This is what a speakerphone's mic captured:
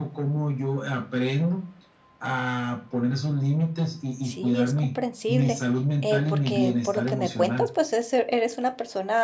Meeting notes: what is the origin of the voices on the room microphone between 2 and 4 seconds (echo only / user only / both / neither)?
echo only